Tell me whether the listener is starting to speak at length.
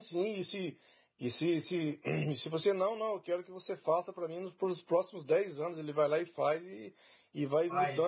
No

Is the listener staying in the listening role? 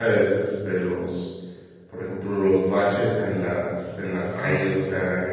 Yes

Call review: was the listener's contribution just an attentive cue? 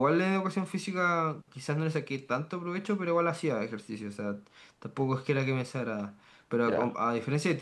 Yes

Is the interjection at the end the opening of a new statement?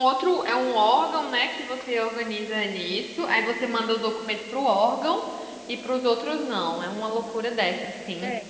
No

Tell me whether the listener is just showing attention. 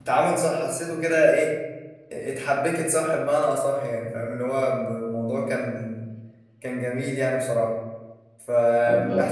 Yes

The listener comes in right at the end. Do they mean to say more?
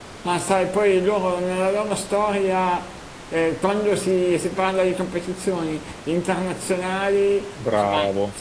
No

